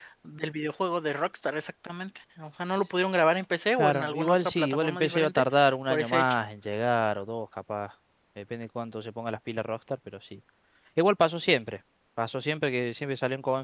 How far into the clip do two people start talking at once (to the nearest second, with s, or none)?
4 s